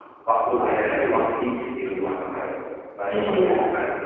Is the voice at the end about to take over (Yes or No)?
Yes